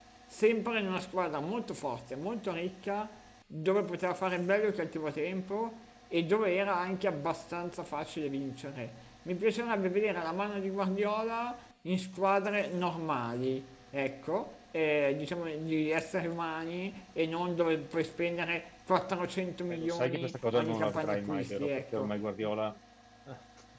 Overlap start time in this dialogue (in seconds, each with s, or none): 19.7 s